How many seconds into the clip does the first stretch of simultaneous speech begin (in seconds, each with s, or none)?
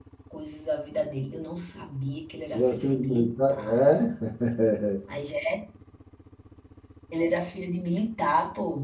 2.5 s